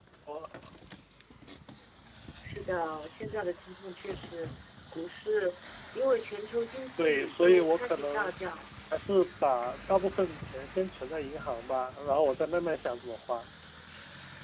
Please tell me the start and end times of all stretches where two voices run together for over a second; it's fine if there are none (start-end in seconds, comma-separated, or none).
7.0-8.3